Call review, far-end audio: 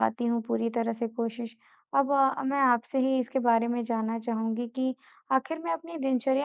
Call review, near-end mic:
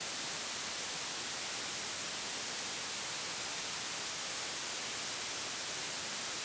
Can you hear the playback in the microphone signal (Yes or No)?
No